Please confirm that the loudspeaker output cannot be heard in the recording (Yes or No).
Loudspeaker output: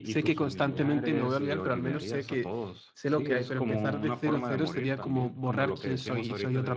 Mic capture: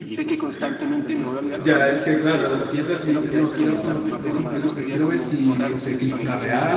No